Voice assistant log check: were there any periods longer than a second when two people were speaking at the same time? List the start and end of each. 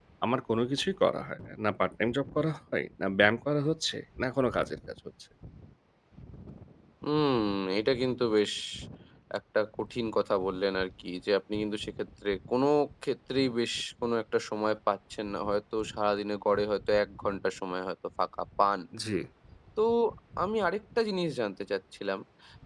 none

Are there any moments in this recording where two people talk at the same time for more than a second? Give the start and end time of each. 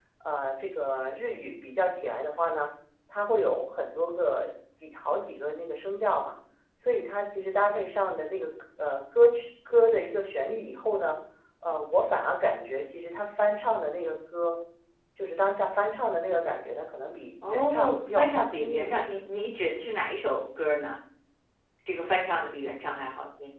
17.5-19.0

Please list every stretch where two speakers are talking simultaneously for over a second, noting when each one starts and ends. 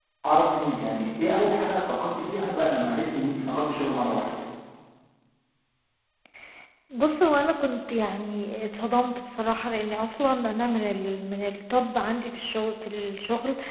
none

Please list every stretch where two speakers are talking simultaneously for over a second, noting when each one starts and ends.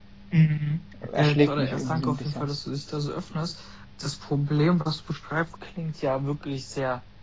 1.2-2.5

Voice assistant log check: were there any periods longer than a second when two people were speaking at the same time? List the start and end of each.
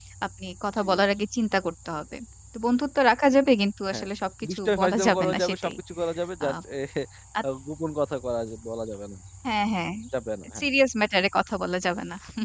4.5-5.7

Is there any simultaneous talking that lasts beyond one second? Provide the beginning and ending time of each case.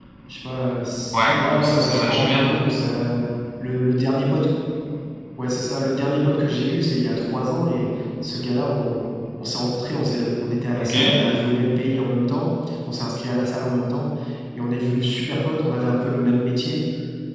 1.1-2.4

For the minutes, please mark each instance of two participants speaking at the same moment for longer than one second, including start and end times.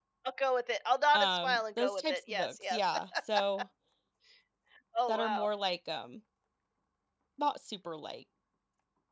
1.1-2.8

